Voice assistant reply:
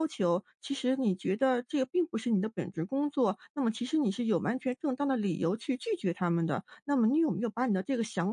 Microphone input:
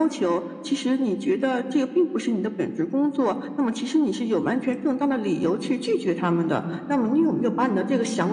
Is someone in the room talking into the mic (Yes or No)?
No